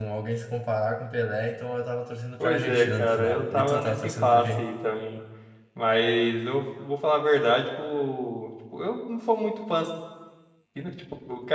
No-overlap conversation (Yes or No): No